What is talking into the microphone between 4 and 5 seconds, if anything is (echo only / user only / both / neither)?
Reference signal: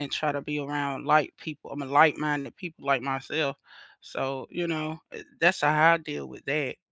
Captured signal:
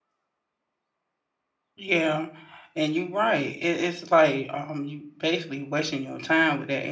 user only